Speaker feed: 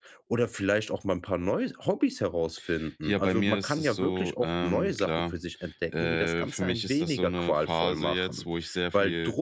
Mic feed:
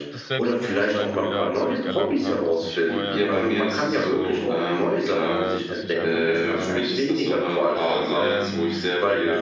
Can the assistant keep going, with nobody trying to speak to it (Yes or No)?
No